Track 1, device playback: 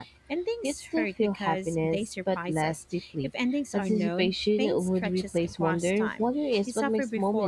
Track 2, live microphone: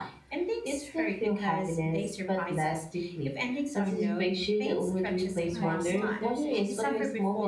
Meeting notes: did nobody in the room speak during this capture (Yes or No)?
No